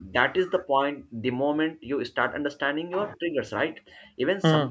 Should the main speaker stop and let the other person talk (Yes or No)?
No